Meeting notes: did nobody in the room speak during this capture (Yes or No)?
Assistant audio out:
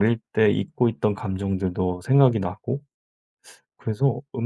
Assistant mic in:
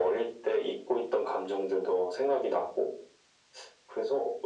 Yes